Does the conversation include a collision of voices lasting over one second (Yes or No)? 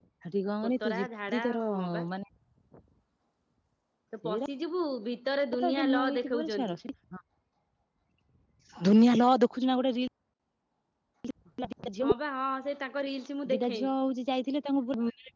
Yes